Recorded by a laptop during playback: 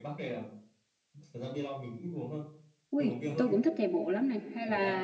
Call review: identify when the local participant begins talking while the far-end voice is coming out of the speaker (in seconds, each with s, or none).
2.9 s